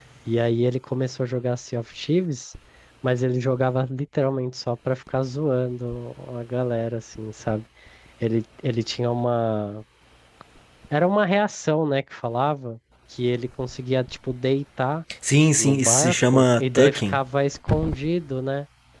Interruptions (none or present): present